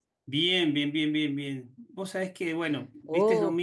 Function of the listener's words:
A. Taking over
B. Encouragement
B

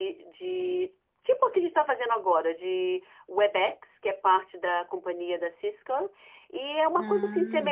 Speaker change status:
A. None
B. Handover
A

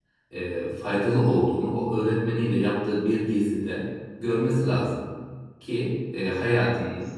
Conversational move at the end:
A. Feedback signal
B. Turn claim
A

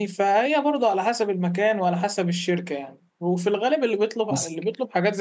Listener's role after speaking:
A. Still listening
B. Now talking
A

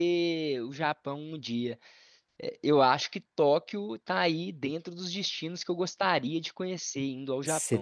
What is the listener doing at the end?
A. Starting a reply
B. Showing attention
A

